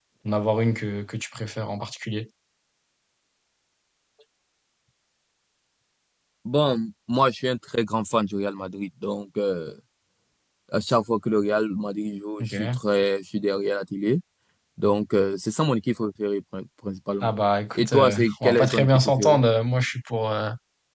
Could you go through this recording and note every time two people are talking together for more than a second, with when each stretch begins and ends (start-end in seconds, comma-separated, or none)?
17.8-19.4